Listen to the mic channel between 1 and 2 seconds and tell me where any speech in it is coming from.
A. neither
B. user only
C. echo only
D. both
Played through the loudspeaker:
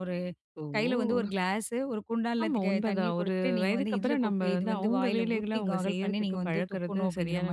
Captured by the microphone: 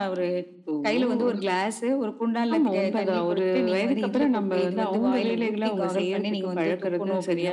C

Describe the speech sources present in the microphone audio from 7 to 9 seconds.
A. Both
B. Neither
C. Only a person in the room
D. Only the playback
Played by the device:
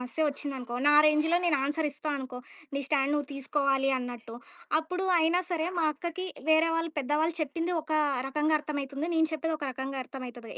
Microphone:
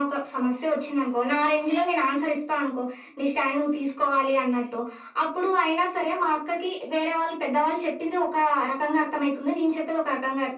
D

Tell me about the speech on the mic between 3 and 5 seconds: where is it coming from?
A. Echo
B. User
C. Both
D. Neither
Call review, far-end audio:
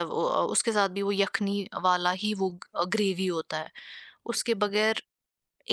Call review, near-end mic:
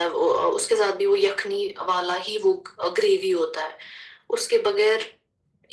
A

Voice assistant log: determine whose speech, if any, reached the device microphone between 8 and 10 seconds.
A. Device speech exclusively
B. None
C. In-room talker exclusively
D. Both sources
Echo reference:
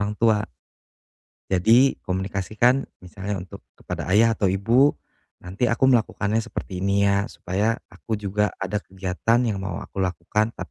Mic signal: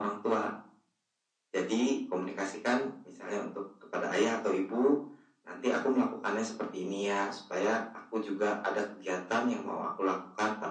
A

